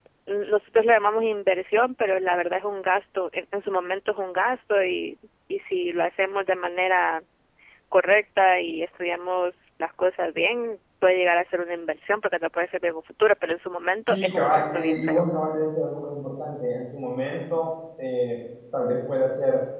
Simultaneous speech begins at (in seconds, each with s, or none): 14.0 s